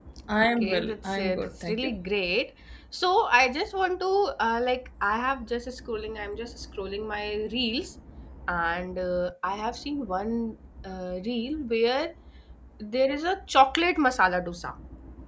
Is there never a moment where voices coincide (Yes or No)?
No